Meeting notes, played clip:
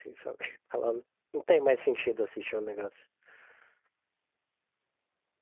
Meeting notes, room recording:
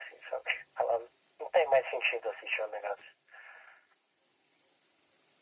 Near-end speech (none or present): none